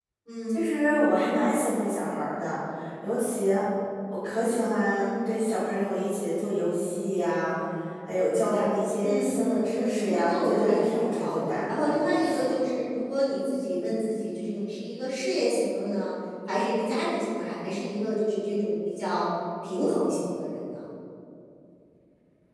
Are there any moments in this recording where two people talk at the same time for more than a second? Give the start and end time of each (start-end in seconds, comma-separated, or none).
9.0-12.5